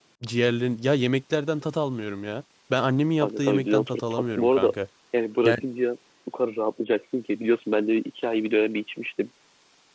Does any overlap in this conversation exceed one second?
Yes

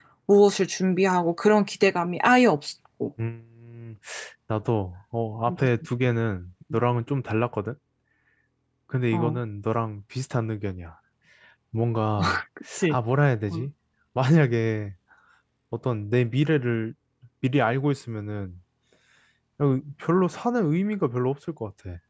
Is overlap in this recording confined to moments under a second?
Yes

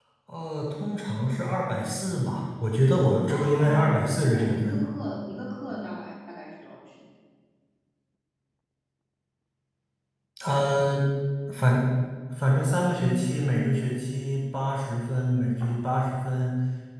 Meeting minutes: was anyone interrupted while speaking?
Yes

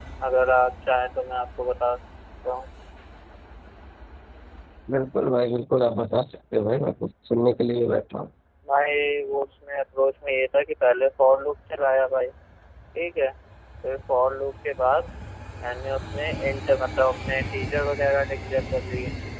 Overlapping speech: No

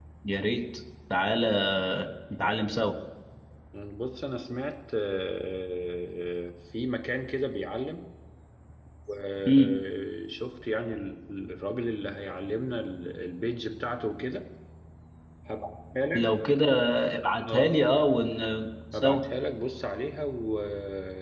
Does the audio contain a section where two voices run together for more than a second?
No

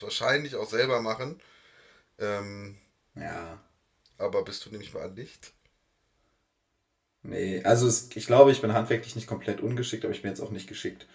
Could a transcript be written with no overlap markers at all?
Yes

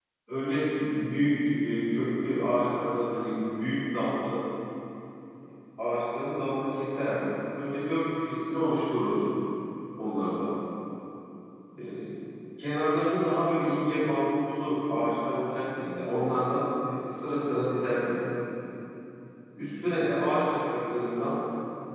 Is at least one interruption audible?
No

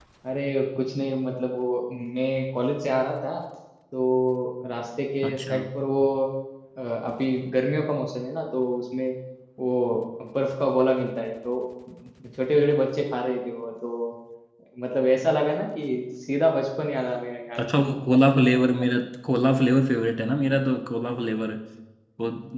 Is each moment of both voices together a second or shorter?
Yes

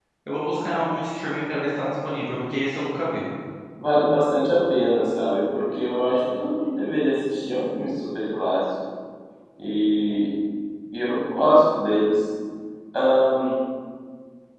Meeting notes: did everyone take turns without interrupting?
Yes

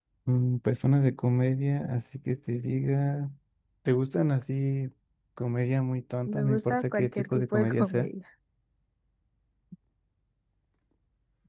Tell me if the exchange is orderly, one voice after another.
No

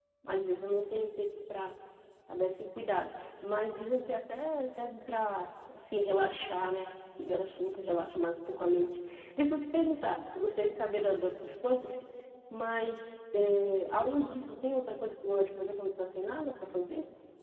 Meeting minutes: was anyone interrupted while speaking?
No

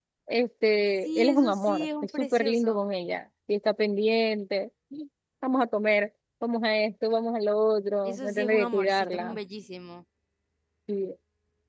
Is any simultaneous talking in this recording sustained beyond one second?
Yes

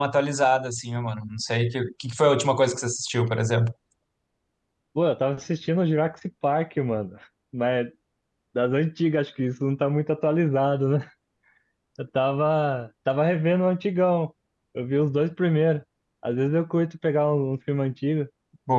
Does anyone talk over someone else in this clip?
No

